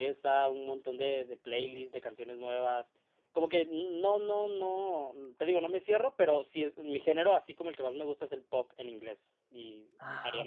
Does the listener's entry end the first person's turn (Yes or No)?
Yes